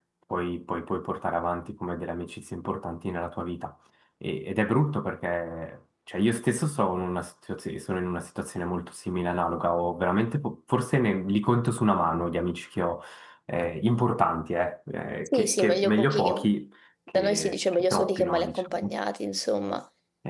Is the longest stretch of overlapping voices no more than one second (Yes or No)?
No